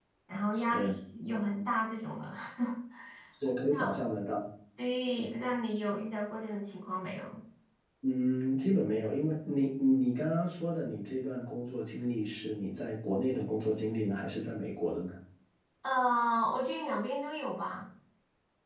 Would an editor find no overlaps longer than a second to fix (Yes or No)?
Yes